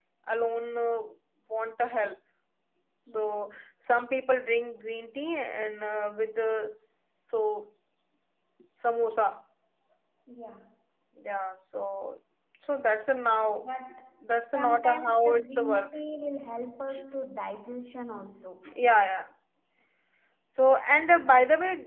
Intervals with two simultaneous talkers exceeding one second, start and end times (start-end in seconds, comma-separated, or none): 14.5-15.9